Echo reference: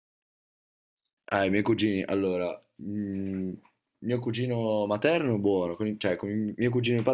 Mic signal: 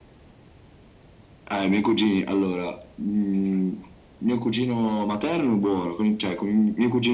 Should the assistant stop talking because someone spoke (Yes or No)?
No